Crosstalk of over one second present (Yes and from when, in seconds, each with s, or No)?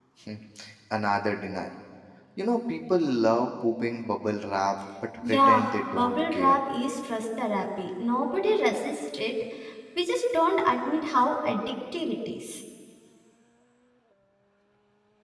Yes, from 5.2 s